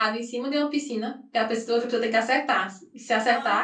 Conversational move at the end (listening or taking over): taking over